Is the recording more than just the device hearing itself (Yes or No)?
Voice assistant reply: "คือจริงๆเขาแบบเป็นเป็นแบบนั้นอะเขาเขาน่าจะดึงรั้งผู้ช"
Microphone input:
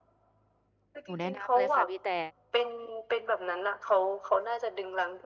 Yes